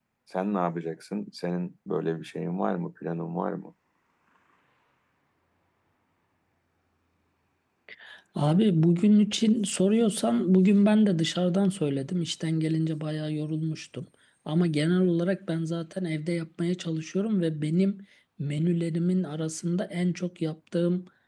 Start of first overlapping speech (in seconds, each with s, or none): none